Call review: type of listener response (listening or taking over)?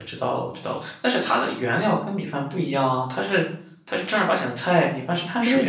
taking over